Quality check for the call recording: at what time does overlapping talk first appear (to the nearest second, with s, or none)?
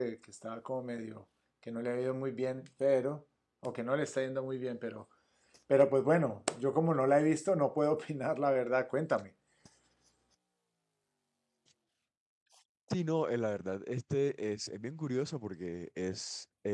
none